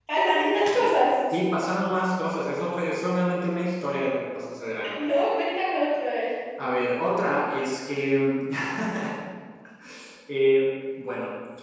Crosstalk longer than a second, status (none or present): none